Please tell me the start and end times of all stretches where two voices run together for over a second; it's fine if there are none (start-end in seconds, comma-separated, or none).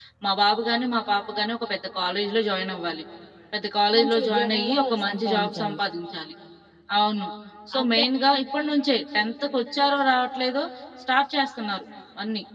3.9-5.8